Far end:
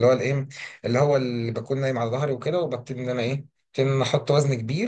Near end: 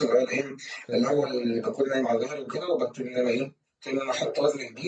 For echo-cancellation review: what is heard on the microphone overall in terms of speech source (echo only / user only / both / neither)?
both